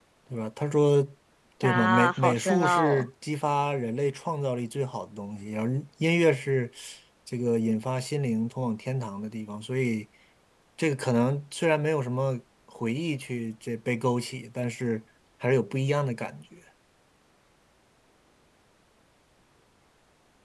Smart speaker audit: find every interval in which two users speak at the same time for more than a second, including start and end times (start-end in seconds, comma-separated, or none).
1.6-3.0